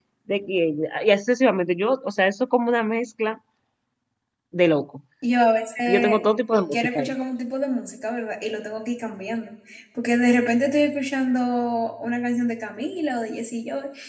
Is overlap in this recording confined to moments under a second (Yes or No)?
Yes